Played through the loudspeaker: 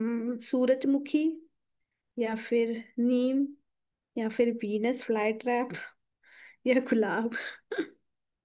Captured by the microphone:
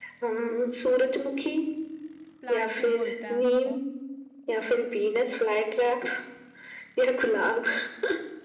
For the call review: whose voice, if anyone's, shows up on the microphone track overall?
both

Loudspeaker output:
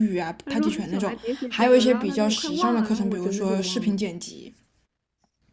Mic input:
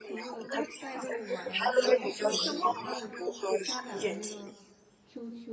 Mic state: both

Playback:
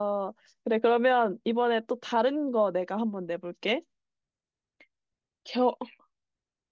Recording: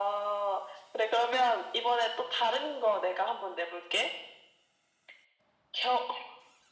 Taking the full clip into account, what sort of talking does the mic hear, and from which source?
echo only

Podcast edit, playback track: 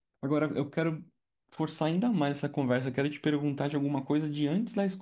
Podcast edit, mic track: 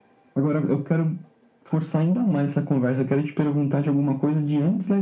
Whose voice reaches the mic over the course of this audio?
echo only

